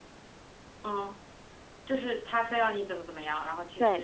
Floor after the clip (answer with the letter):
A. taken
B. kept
A